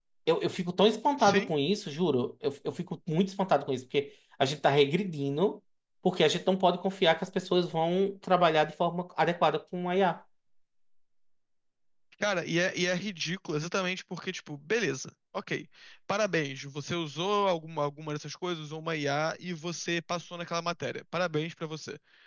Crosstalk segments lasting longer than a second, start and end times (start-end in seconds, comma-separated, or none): none